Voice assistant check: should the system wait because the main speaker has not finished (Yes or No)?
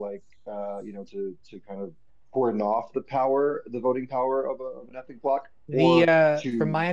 No